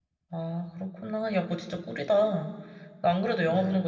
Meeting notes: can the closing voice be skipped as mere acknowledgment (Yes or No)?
Yes